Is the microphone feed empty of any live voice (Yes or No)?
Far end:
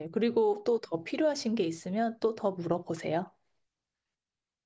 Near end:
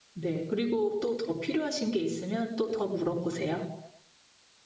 Yes